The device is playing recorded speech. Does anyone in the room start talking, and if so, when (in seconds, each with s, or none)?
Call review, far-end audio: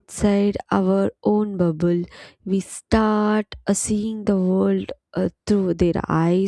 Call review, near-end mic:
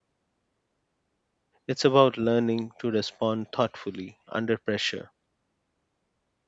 1.7 s